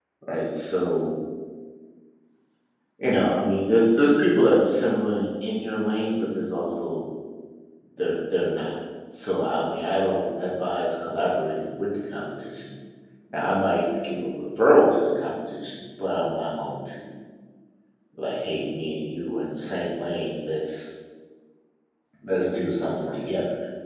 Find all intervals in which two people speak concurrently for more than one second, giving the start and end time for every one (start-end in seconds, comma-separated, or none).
none